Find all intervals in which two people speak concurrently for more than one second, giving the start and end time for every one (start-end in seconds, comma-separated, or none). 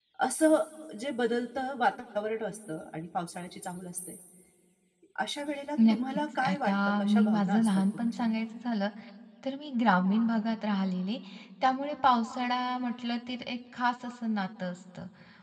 5.9-8.2